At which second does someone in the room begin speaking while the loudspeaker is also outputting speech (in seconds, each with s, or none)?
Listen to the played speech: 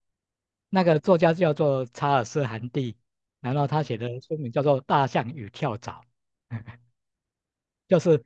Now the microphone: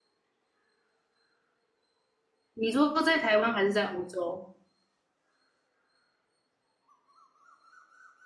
2.5 s